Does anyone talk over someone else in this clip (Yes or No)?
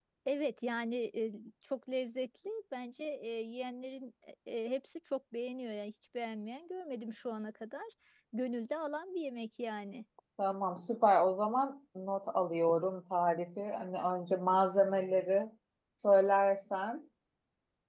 No